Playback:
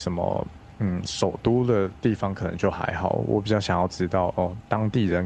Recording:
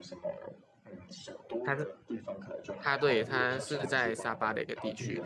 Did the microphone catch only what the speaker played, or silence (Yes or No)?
No